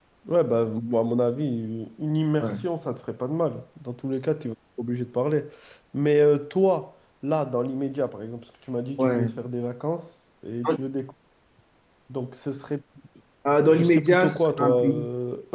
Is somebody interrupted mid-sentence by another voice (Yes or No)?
Yes